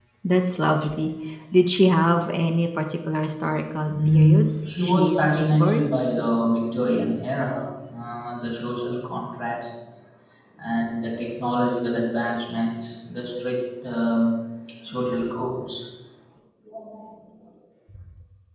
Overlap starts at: 3.9 s

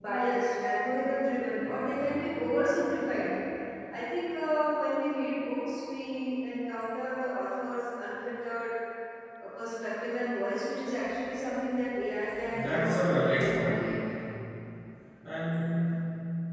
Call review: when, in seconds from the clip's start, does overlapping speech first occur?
12.3 s

